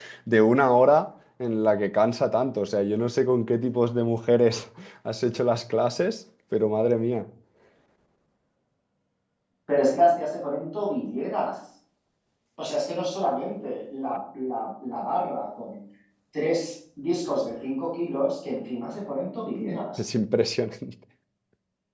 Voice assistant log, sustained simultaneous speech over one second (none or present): none